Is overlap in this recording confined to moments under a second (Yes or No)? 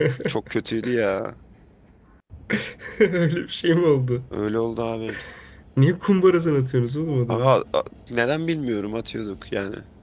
Yes